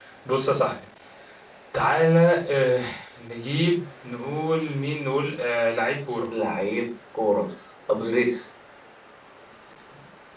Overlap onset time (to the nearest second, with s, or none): none